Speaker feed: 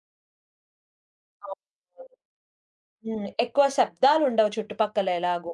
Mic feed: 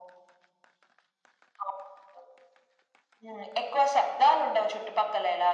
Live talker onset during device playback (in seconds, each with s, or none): none